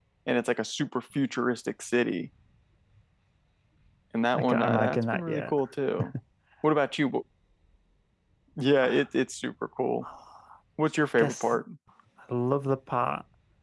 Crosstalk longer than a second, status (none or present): present